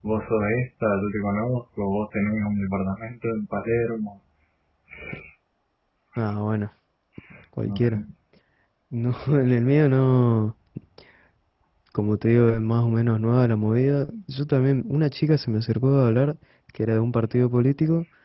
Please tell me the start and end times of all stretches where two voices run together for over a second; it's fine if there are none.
none

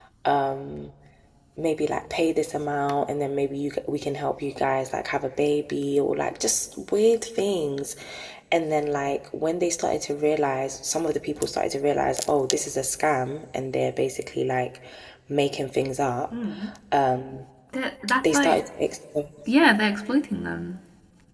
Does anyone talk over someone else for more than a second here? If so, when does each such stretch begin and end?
none

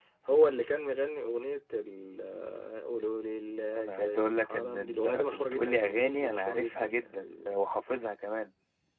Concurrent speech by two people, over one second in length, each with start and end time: 3.8-7.5

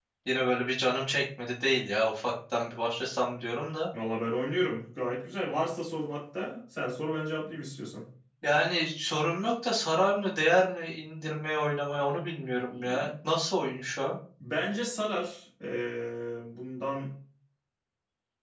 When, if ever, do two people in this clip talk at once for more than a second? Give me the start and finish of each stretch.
none

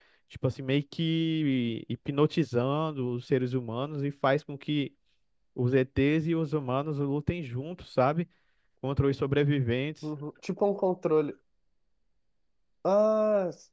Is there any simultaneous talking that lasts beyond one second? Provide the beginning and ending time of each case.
none

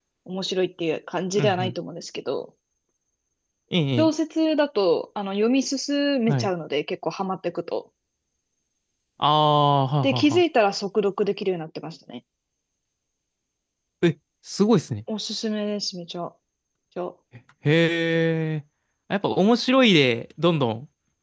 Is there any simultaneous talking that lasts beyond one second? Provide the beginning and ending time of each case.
none

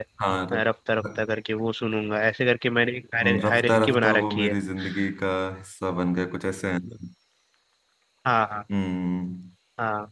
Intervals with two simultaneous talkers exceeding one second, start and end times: 3.2-4.5

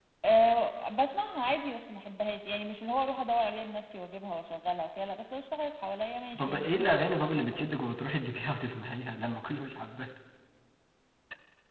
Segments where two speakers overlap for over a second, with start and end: 6.4-7.7

